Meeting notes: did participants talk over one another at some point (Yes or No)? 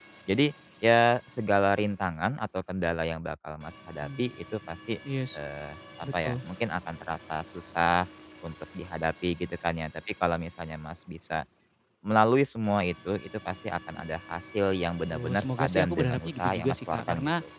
Yes